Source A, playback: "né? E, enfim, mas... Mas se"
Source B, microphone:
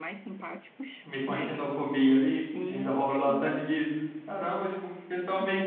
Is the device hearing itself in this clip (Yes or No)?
Yes